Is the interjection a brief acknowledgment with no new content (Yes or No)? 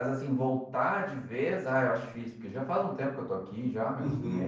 No